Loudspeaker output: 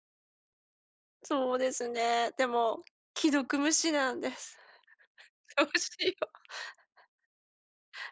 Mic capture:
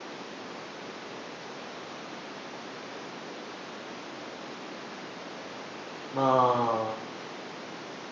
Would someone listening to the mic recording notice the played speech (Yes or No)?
No